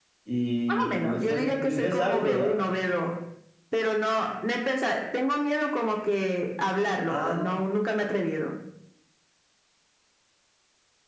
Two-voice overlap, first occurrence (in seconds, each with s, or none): 0.7 s